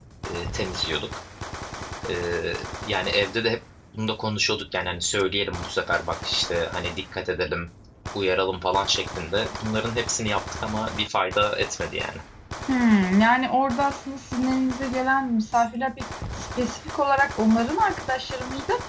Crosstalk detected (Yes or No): No